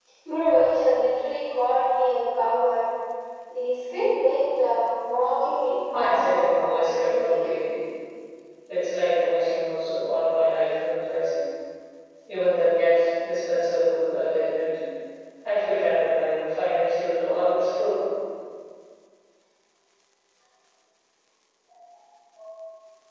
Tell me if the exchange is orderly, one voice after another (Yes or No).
No